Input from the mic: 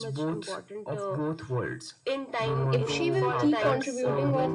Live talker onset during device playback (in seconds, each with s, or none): 2.7 s